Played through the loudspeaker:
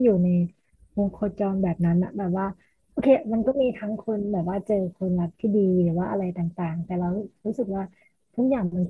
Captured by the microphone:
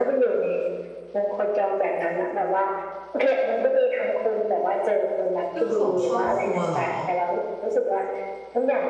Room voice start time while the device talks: 5.5 s

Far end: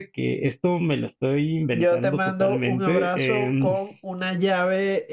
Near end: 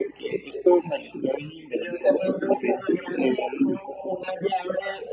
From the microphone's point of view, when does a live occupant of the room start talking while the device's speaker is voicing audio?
none

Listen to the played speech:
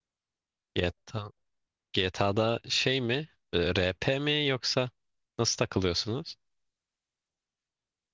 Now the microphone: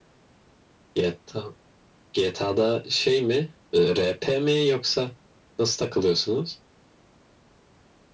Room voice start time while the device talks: none

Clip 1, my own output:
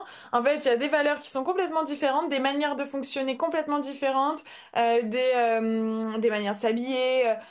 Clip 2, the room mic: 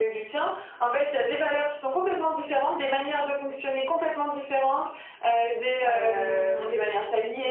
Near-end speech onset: 5.8 s

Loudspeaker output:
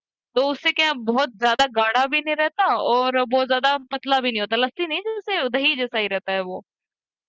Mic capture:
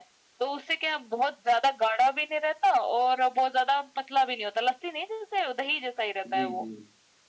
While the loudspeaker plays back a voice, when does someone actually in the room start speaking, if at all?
6.3 s

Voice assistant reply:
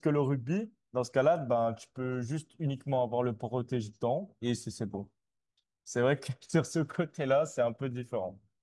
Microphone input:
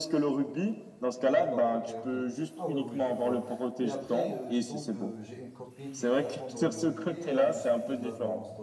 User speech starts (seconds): 1.2 s

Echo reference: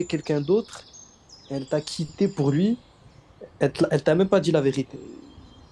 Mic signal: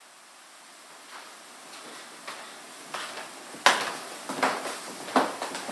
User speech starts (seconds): none

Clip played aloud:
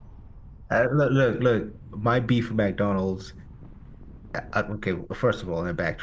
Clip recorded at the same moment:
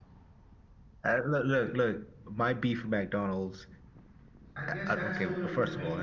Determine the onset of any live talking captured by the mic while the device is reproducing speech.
4.6 s

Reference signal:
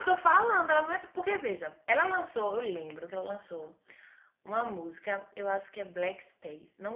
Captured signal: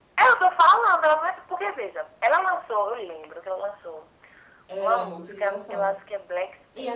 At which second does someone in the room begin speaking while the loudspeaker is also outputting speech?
4.7 s

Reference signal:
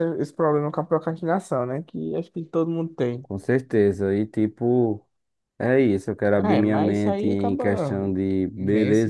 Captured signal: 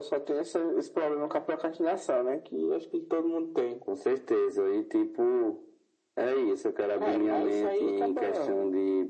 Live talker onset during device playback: none

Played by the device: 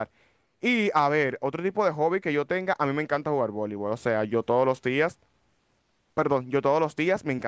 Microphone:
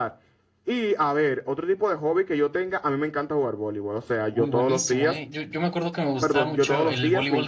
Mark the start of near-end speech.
4.3 s

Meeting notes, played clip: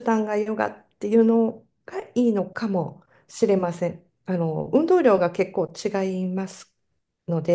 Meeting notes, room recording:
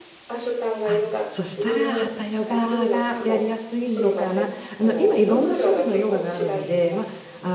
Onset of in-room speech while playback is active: 0.8 s

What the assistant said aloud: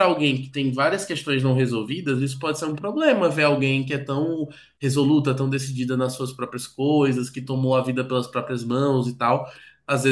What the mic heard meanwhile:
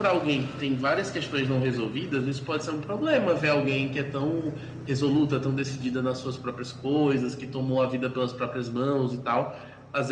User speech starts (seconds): none

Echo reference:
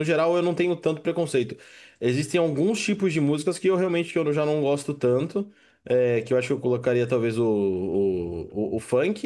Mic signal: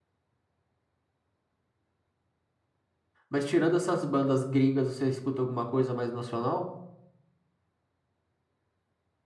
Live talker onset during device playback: 3.3 s

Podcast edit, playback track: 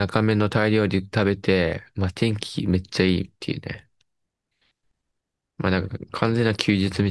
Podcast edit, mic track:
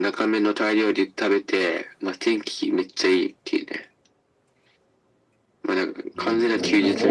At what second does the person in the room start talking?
6.1 s

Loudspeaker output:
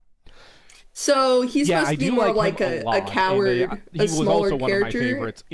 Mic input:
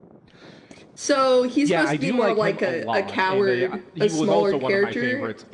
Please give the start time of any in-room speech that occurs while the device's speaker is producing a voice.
none

